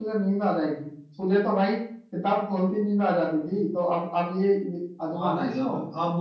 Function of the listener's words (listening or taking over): taking over